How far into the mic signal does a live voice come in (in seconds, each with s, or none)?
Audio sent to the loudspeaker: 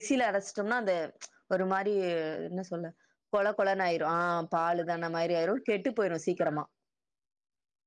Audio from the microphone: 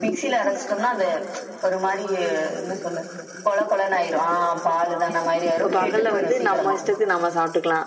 5.6 s